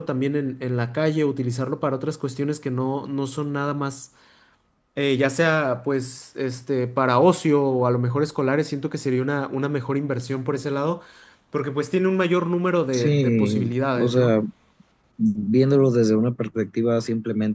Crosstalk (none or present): present